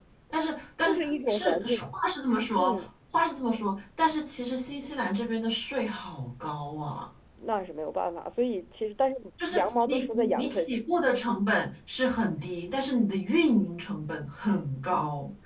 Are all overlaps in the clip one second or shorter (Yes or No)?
No